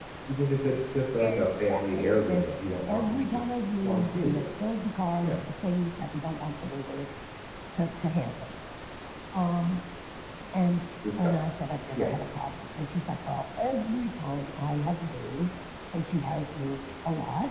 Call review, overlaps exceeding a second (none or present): present